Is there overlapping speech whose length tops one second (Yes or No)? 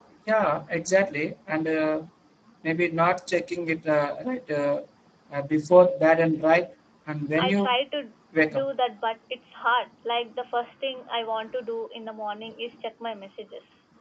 No